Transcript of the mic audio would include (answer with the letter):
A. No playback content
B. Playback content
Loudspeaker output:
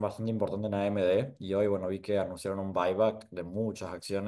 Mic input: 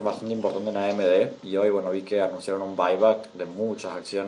B